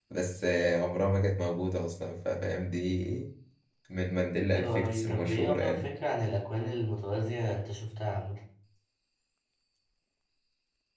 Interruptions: present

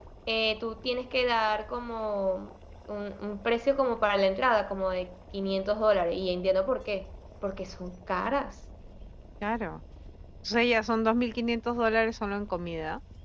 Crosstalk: none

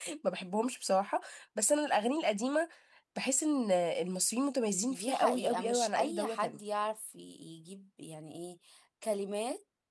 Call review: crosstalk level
present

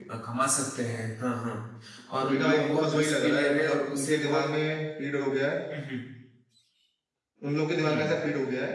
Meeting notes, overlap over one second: present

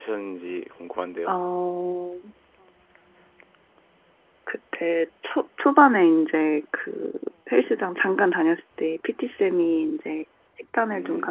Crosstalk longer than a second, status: none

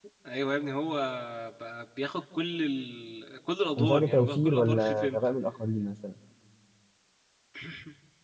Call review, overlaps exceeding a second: present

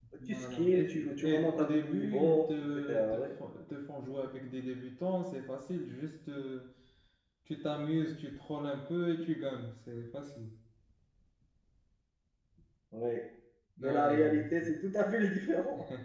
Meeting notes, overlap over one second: present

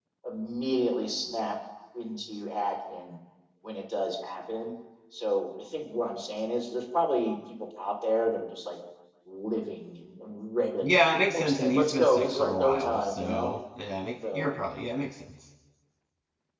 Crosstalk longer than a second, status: present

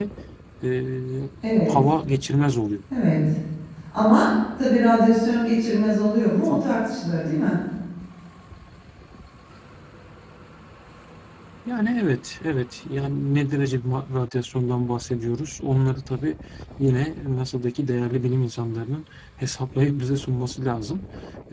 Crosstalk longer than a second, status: none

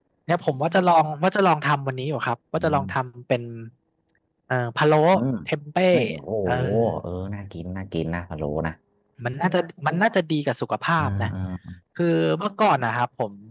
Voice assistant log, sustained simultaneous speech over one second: none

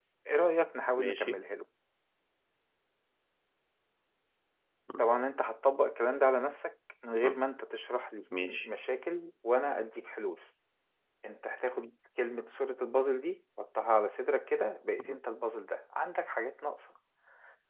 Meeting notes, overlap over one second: none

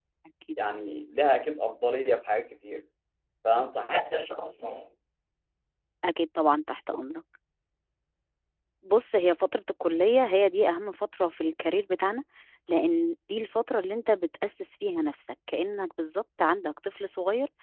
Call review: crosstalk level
none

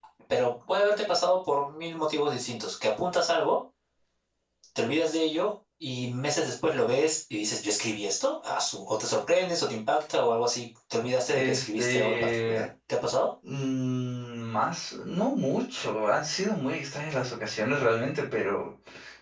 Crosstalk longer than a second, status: present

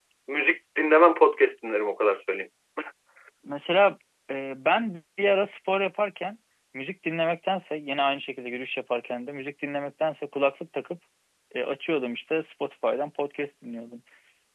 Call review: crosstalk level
none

